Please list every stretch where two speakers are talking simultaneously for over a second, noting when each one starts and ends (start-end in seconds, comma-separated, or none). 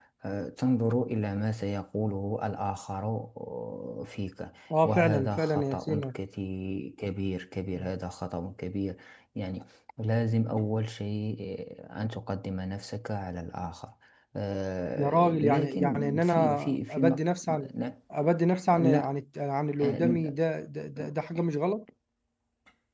4.8-6.0, 14.9-17.2